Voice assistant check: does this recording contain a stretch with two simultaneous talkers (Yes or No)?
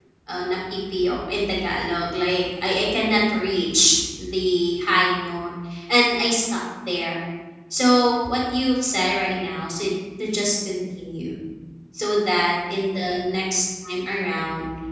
No